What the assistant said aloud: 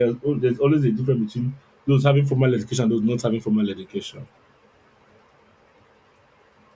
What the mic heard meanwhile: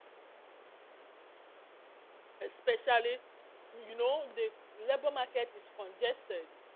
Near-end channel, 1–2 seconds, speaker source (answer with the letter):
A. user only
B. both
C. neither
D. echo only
C